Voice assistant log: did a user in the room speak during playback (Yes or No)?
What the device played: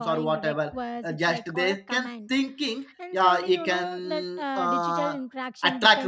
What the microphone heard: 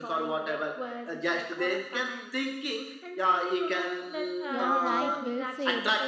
Yes